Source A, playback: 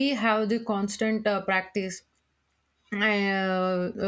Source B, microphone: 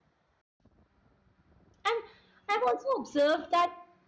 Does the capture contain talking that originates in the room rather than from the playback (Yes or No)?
Yes